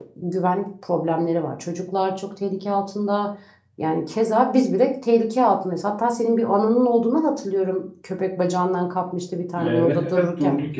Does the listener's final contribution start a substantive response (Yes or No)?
Yes